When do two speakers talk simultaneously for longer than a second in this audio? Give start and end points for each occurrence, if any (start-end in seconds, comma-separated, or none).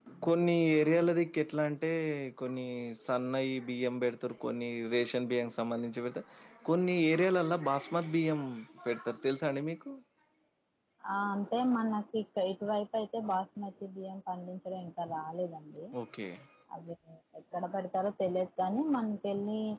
none